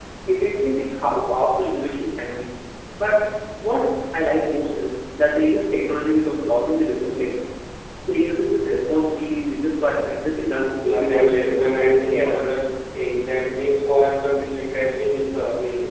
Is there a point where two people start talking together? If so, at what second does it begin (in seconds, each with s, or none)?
10.8 s